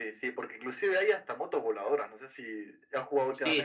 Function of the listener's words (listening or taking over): taking over